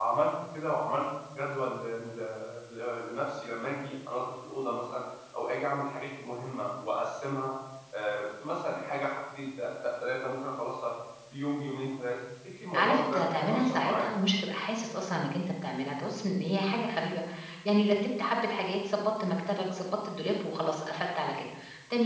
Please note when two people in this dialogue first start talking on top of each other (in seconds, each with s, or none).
12.7 s